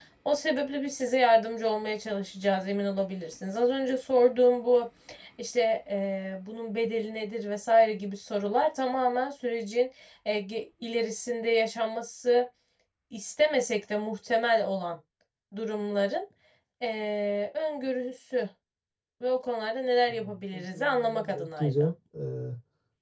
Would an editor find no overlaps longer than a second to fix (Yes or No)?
No